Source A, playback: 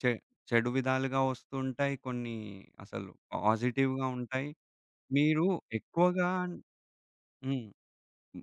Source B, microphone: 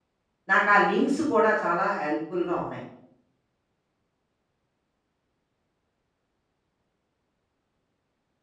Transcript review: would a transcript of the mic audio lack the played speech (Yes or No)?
Yes